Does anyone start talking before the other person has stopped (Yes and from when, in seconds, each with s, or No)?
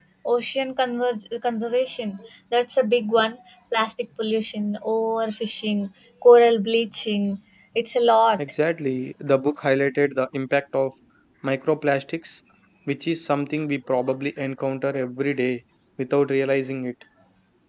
No